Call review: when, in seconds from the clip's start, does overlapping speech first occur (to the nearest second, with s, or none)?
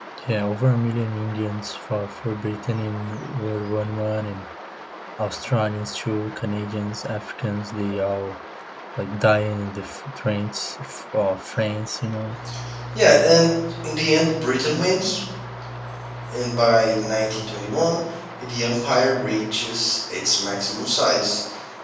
none